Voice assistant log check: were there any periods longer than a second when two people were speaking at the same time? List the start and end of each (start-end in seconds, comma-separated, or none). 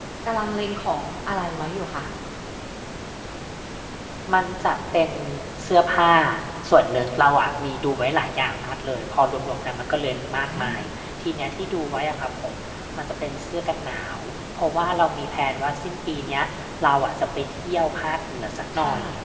none